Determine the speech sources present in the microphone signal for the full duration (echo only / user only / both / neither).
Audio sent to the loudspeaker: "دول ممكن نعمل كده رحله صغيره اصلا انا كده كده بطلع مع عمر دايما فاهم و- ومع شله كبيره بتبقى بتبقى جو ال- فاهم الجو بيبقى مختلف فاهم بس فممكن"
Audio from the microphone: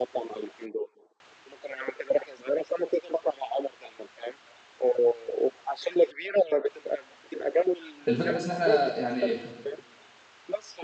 both